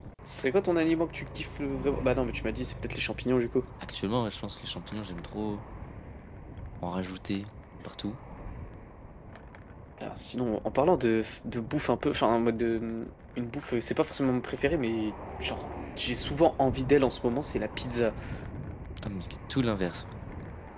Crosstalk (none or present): none